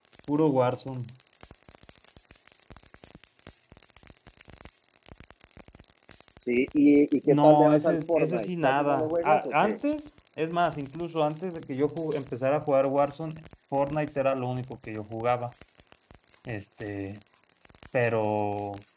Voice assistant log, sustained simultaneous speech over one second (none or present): present